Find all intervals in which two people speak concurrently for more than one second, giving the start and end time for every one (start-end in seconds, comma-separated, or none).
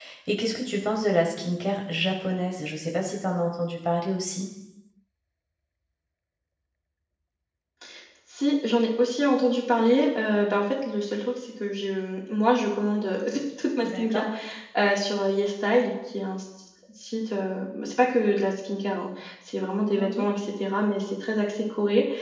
none